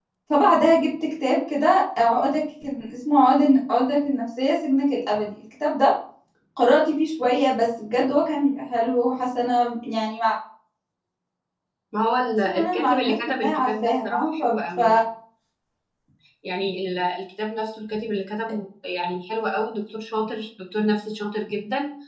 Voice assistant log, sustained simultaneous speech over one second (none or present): present